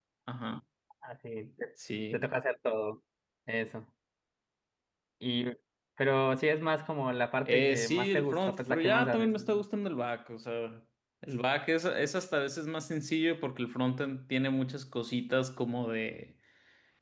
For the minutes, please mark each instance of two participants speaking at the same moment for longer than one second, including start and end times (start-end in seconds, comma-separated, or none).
7.5-9.4